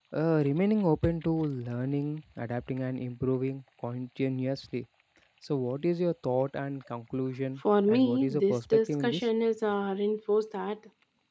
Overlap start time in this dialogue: 7.9 s

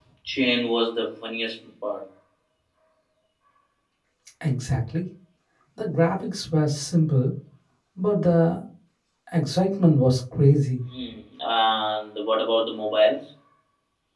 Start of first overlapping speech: none

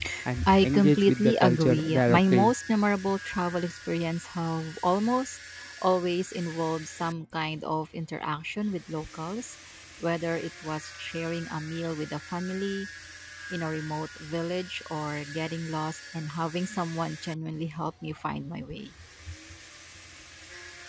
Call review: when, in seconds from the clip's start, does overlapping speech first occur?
0.6 s

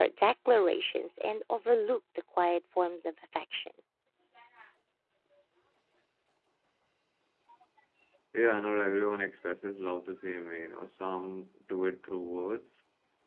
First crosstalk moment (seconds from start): none

